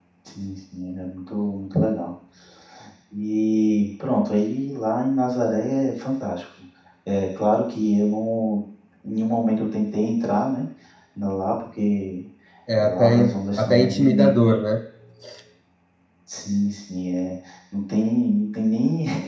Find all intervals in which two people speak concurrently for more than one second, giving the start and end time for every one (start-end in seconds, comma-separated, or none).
12.8-14.6